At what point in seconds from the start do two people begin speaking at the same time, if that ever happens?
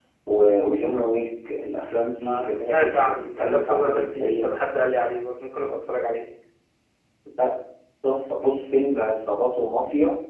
2.2 s

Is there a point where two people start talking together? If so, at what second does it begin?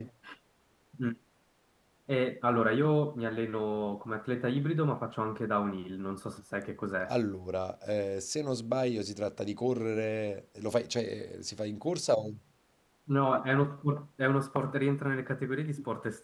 none

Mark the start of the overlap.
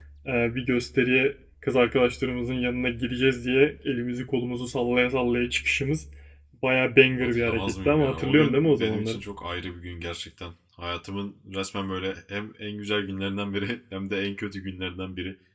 7.2 s

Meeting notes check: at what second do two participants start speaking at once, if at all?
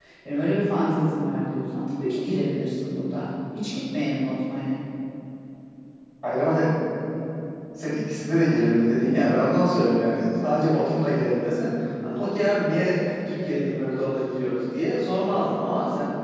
none

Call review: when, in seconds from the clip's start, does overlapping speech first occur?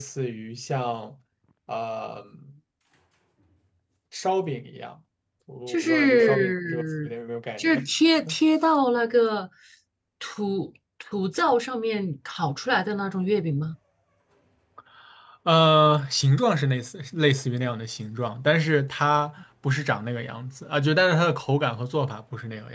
5.7 s

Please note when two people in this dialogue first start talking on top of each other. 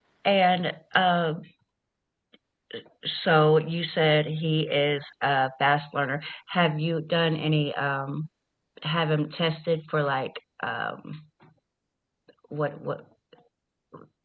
none

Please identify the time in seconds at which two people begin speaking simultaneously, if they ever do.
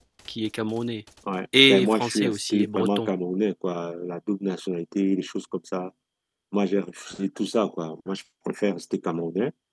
1.7 s

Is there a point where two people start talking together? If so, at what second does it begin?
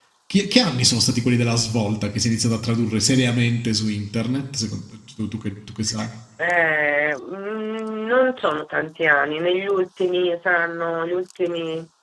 none

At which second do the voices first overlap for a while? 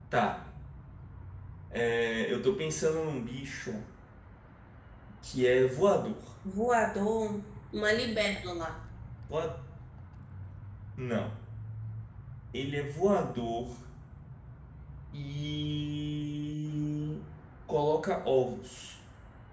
none

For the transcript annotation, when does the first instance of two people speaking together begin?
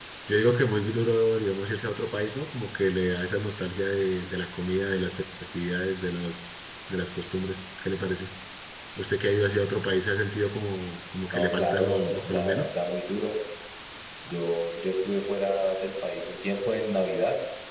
11.3 s

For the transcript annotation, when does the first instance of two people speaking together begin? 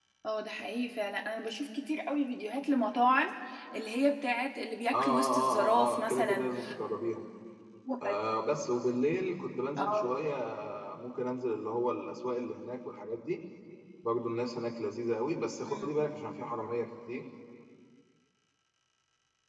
4.9 s

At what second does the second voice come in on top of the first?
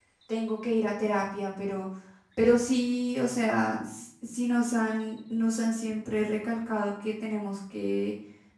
none

